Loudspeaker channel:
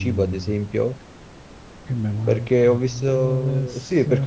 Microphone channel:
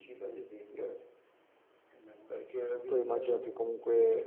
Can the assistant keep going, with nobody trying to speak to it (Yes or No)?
No